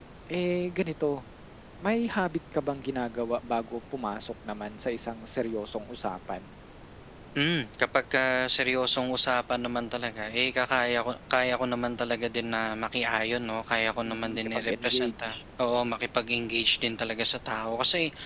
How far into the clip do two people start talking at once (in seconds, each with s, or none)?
14.0 s